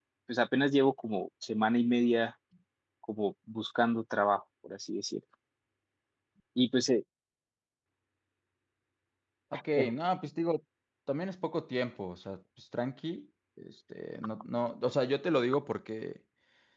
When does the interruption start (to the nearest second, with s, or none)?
none